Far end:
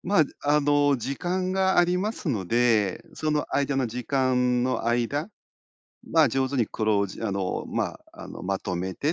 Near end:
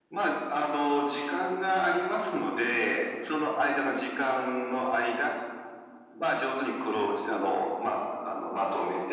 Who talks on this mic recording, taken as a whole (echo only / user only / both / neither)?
echo only